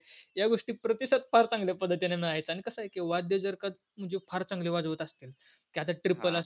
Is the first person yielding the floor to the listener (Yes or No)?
No